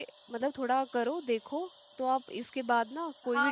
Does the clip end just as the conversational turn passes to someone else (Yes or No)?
Yes